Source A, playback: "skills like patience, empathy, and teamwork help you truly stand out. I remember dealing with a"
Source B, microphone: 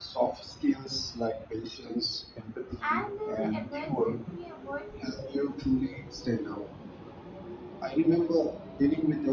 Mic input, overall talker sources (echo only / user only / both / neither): both